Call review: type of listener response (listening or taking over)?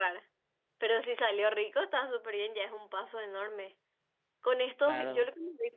listening